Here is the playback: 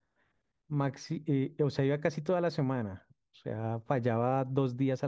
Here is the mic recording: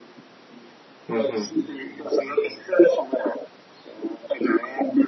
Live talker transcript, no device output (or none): Ujú, ujú.